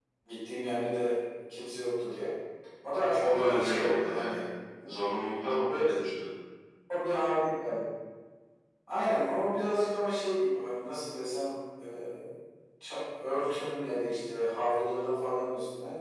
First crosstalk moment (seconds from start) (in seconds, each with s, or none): 3.2 s